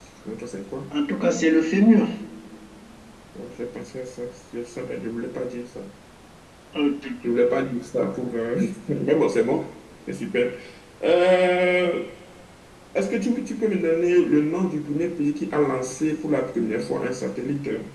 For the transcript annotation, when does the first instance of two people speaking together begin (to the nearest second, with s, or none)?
none